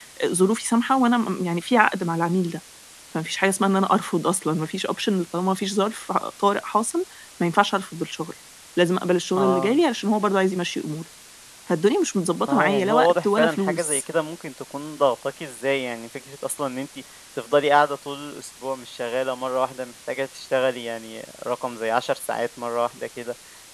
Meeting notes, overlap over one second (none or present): present